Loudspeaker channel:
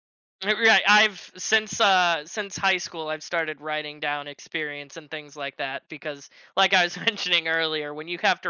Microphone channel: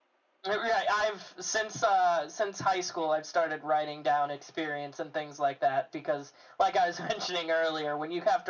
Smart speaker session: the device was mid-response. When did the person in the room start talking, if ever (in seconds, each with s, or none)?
none